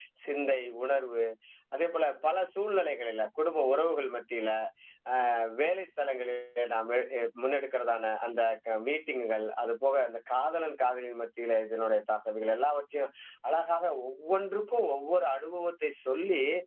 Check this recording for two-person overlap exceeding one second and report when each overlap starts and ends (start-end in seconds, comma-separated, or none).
none